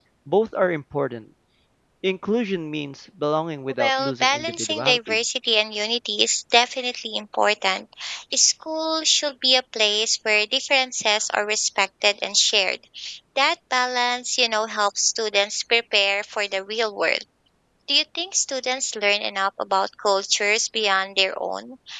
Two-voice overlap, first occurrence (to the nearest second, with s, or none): 4 s